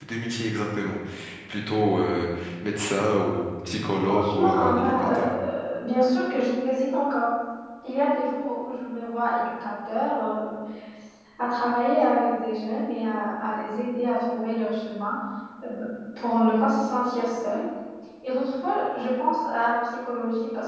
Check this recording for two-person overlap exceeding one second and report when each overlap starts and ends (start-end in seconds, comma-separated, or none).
4.1-5.3